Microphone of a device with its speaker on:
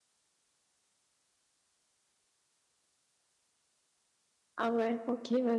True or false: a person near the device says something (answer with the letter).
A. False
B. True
B